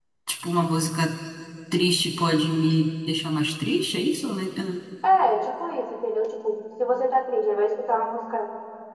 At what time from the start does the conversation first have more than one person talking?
none

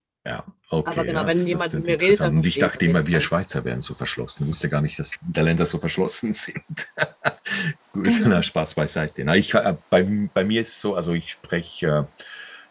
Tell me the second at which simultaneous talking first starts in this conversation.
0.8 s

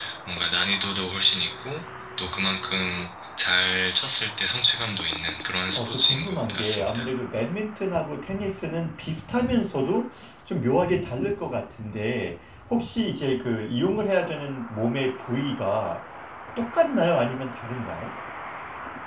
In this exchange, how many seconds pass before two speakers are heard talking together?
5.7 s

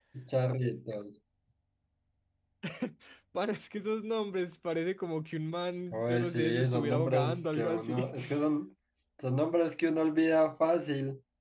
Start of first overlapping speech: 5.9 s

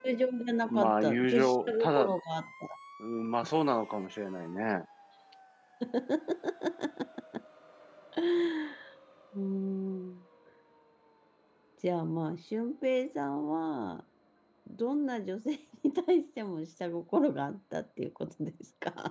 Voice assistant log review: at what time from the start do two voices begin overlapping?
0.7 s

